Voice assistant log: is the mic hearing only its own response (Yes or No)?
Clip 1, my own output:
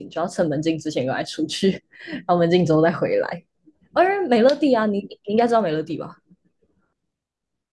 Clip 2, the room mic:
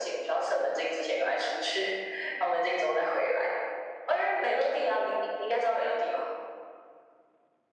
Yes